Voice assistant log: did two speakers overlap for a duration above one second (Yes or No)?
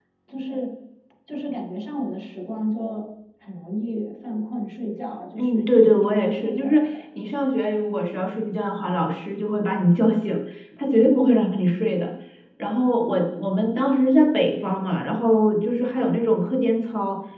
Yes